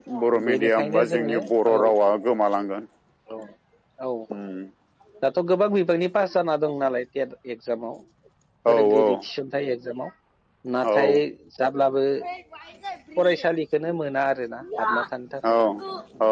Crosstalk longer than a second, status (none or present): present